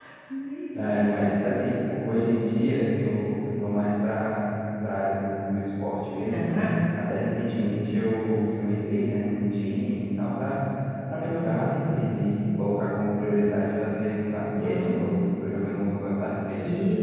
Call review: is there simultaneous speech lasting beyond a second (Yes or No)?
No